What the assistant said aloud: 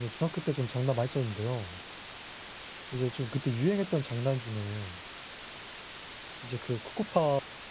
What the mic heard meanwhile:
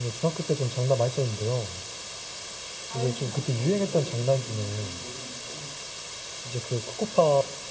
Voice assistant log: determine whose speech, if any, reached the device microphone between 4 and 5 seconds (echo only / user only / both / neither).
both